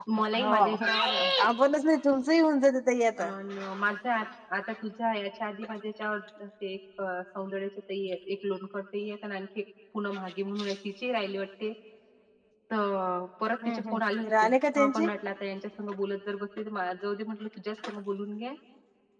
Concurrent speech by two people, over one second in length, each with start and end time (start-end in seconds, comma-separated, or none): 13.7-15.0